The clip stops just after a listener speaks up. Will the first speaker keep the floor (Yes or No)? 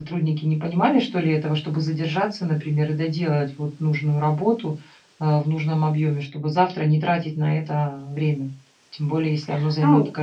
No